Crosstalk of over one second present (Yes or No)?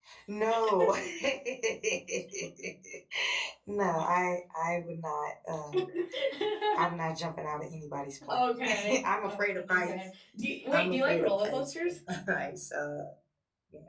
Yes